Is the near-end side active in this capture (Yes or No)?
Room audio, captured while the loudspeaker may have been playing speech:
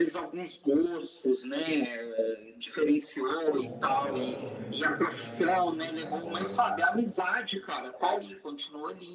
Yes